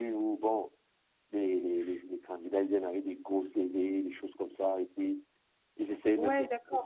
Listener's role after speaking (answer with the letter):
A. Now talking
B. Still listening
A